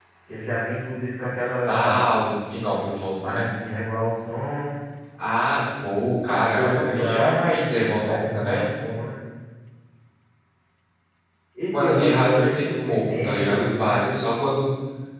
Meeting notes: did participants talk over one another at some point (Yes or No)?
Yes